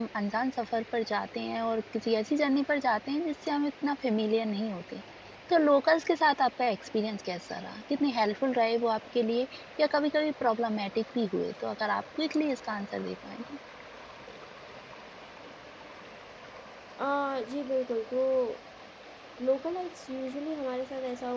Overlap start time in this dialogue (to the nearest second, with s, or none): none